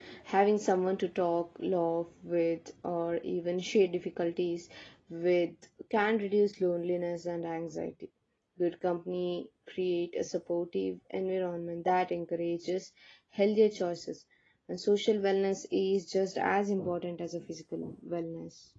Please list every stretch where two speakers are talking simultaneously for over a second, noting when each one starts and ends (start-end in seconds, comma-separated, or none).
none